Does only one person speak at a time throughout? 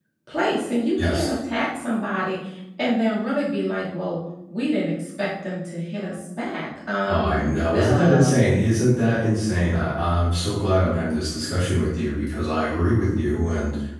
No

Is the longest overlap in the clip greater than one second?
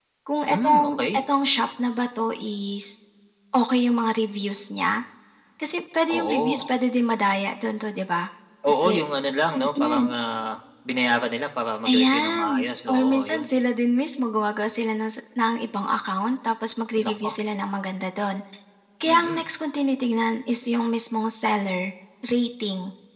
Yes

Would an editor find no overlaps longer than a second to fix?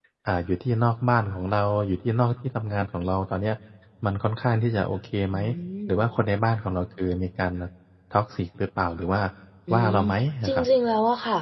Yes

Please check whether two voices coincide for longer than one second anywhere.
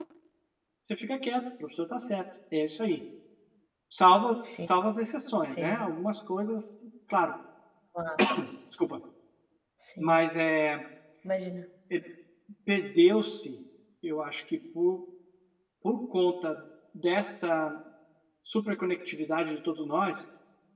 No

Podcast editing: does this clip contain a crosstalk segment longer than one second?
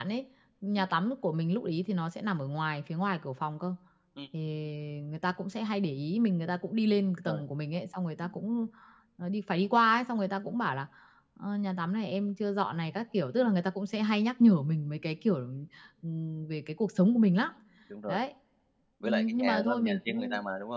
Yes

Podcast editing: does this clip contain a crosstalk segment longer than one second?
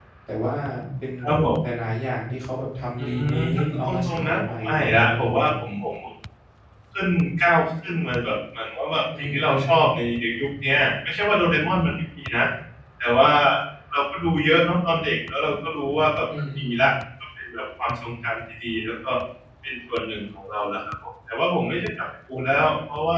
Yes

